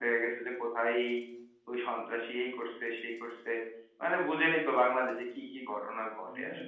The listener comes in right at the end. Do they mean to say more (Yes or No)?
Yes